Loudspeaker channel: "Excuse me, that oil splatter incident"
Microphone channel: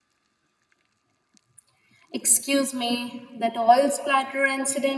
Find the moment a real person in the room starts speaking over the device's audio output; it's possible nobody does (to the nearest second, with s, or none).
none